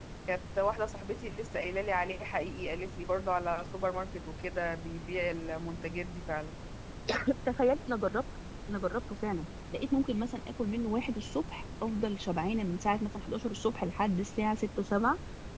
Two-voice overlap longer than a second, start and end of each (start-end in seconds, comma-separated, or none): none